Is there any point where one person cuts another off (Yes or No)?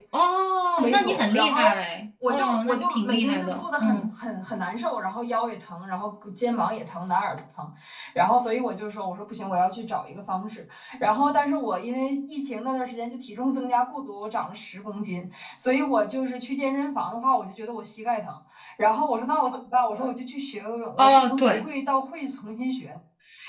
Yes